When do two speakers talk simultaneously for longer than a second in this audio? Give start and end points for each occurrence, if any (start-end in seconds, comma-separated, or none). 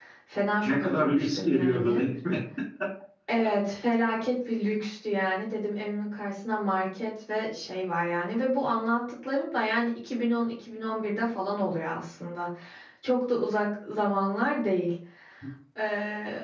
0.6-2.0